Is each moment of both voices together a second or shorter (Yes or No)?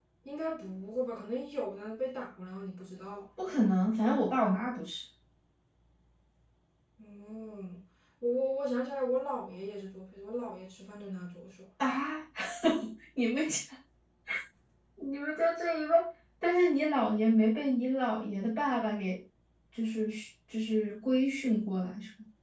Yes